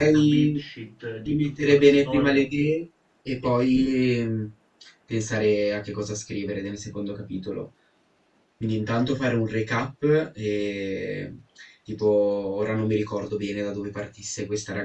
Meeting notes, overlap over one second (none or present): present